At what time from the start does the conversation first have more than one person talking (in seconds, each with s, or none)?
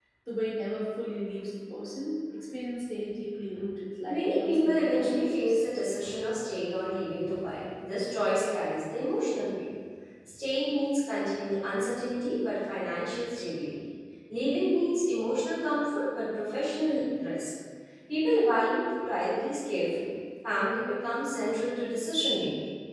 4.1 s